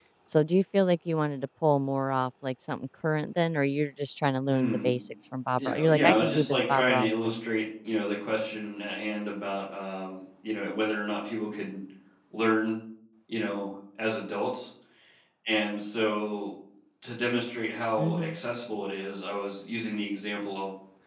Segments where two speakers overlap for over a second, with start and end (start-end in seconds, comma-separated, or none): 5.6-7.4